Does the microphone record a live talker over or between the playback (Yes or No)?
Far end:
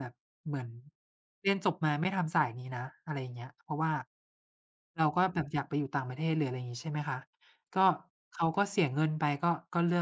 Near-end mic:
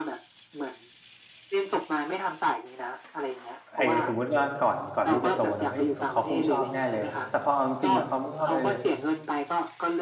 Yes